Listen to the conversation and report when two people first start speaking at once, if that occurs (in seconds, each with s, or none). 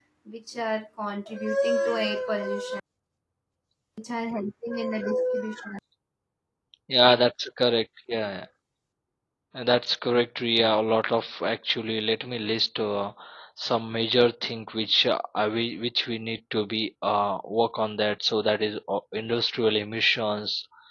none